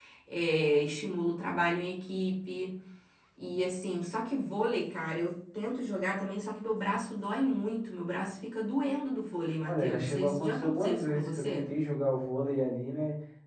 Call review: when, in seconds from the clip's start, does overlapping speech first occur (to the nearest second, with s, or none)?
10 s